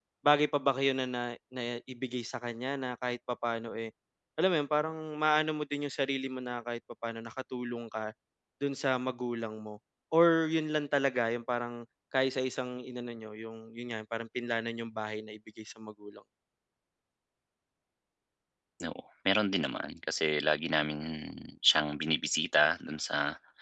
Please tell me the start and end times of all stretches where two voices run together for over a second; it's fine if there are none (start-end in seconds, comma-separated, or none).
none